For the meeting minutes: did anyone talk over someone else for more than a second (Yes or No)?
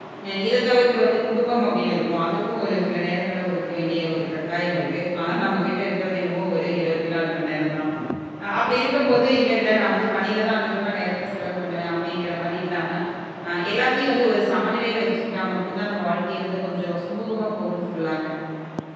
No